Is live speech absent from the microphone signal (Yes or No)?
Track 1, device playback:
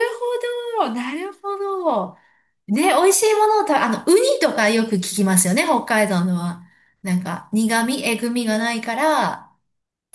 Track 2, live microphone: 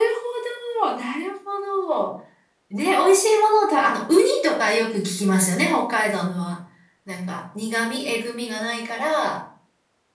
Yes